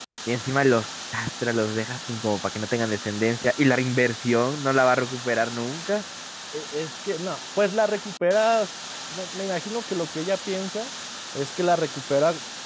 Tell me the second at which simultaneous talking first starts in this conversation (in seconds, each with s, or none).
none